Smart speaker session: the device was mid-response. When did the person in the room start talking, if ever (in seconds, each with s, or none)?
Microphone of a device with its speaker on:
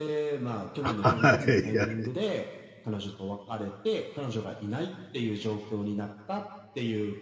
0.8 s